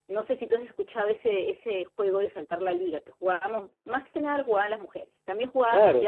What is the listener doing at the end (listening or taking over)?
taking over